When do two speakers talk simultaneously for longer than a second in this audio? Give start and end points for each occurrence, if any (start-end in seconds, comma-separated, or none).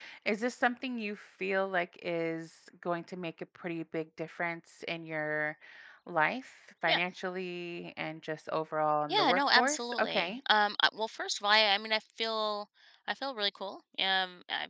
9.1-10.4